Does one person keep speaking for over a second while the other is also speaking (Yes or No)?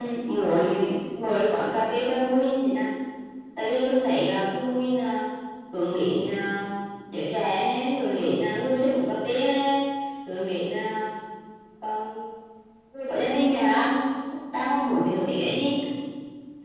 No